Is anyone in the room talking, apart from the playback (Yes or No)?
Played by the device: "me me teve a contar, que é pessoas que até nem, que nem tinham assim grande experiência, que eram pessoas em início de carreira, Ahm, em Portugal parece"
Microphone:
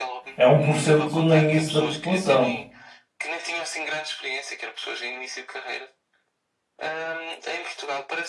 Yes